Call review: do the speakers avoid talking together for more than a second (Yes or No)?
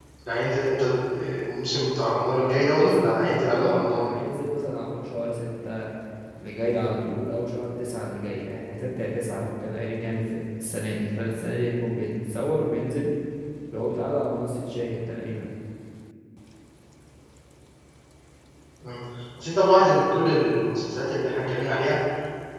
No